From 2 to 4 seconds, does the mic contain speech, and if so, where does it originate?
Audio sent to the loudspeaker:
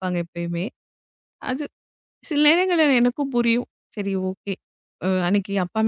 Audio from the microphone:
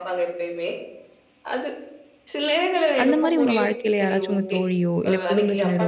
both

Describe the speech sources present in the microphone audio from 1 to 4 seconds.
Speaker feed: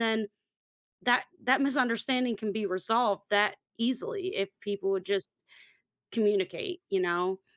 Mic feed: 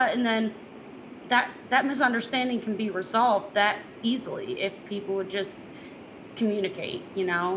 echo only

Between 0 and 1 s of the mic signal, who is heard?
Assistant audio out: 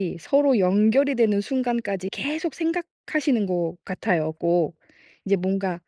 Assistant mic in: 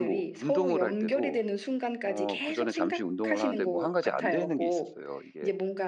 both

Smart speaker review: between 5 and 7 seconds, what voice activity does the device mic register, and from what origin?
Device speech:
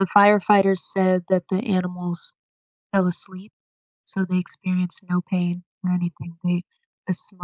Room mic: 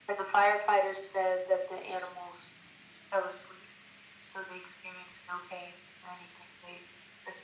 echo only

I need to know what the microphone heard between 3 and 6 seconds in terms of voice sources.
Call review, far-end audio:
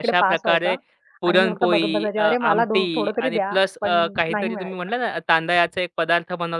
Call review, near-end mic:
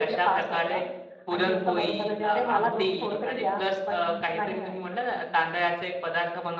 echo only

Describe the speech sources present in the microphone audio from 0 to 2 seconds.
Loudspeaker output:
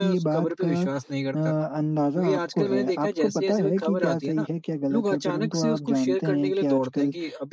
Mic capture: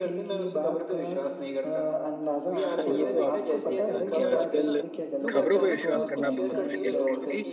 echo only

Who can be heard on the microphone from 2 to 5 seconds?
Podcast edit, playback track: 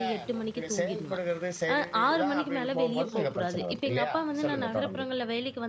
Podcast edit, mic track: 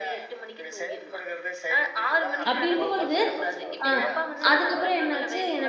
both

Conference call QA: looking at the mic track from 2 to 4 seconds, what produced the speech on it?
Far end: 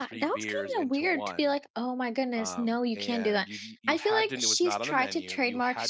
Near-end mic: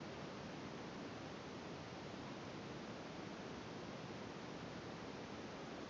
neither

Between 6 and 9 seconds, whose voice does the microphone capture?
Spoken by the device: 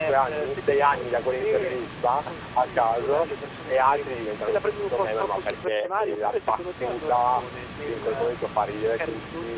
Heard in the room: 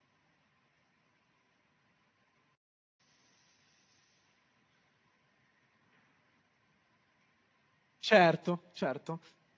user only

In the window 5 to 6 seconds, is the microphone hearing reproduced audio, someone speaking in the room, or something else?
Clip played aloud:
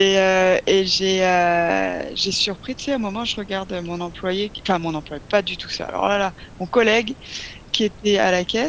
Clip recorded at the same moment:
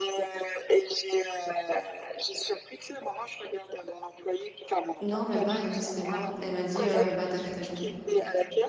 both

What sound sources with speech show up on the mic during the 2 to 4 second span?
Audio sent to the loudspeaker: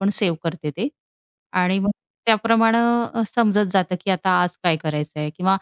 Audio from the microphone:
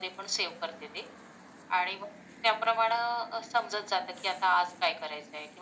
echo only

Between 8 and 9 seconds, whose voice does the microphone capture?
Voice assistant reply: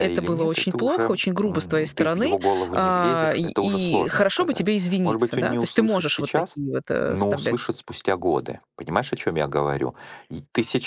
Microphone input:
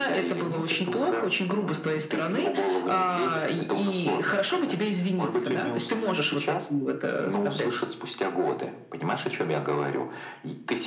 echo only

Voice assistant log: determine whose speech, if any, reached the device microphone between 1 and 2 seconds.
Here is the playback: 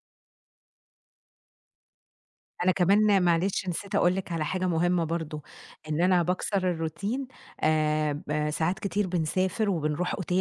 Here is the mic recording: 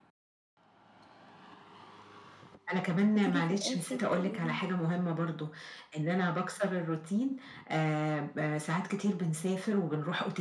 neither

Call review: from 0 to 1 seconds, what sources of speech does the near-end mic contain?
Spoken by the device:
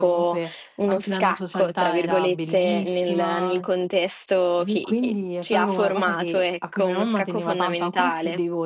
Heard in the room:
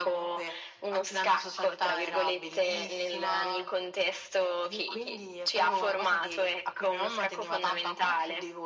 echo only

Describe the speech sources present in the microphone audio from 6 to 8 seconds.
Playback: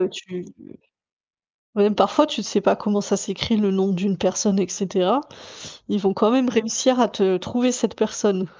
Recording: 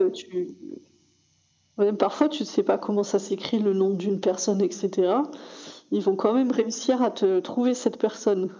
echo only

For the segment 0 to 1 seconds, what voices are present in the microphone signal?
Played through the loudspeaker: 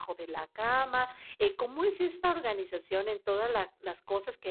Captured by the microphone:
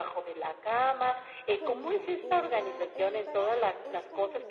echo only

